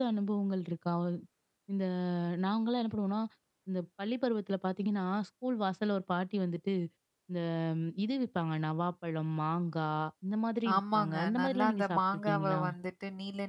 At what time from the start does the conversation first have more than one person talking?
10.7 s

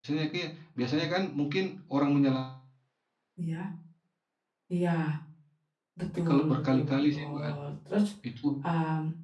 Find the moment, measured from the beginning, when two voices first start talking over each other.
6.2 s

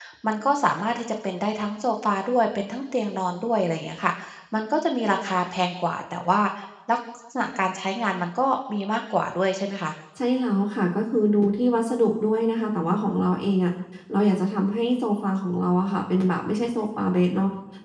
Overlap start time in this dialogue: none

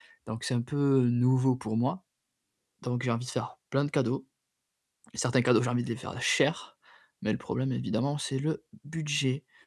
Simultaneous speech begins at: none

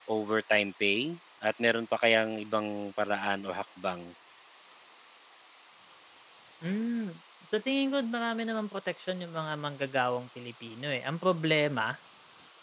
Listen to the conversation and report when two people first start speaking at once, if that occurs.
none

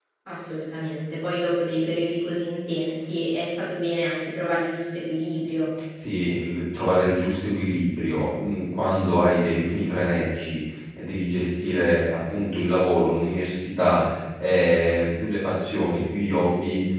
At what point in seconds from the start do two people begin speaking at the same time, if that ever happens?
none

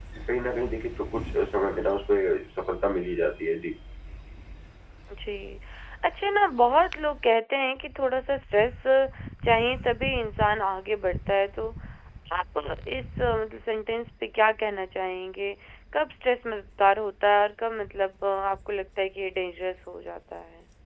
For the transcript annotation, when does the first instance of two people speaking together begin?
none

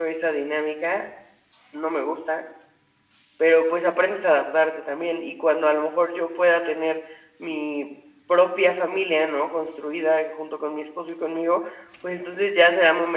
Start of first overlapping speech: none

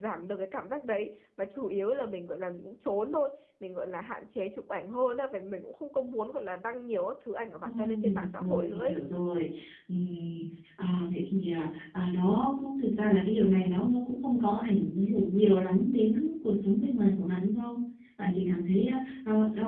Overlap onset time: 7.6 s

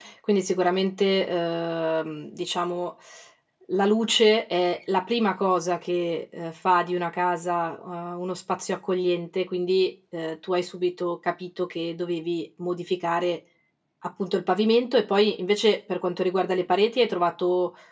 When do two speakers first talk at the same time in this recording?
none

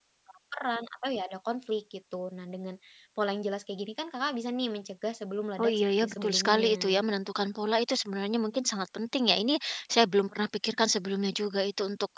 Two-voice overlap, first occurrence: 5.6 s

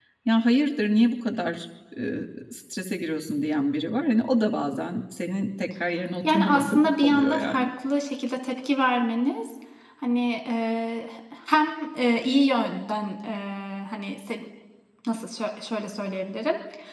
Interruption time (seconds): 6.2 s

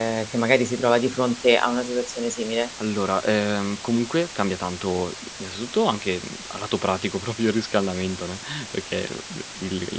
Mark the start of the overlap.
none

